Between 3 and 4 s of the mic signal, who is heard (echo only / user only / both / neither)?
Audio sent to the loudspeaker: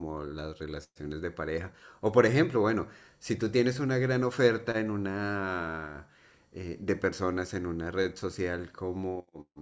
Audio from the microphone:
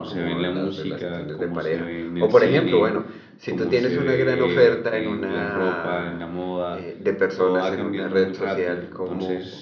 both